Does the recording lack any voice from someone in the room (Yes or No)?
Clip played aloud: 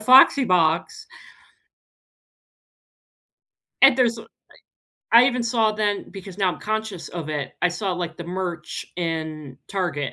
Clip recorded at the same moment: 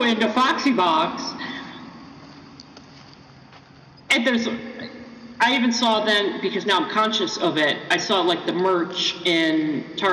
Yes